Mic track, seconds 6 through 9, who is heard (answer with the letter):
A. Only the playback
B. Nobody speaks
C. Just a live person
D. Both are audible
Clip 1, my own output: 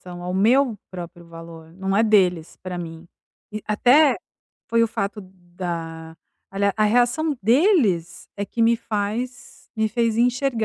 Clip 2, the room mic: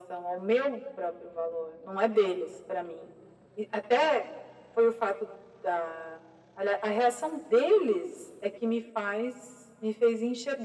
A